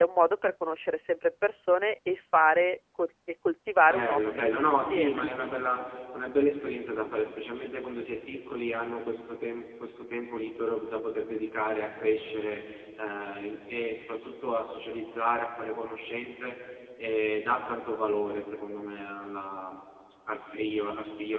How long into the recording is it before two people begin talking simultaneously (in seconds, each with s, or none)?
3.8 s